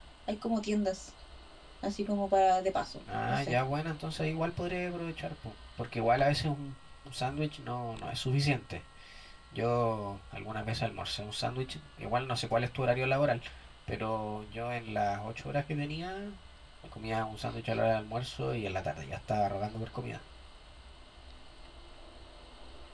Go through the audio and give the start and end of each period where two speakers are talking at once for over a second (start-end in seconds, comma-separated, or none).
none